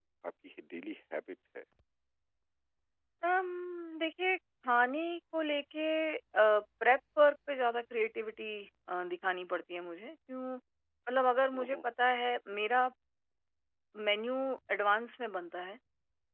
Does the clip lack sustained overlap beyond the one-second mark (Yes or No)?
Yes